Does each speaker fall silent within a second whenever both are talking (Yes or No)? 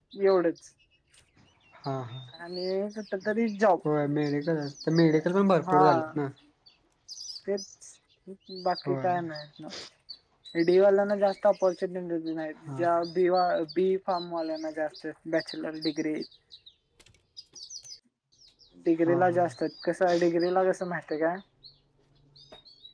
Yes